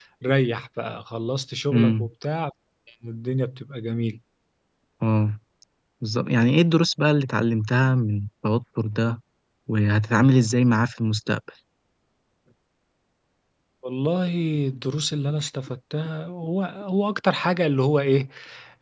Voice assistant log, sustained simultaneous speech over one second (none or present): none